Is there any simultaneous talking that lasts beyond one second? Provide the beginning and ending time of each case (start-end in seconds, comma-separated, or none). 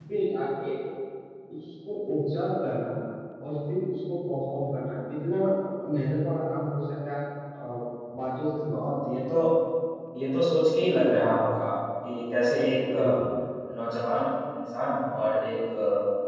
none